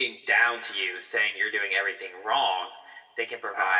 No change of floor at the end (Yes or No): Yes